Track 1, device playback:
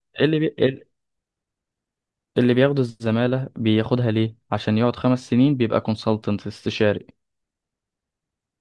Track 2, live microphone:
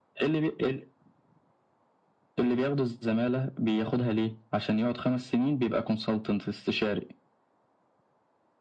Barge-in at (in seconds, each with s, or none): none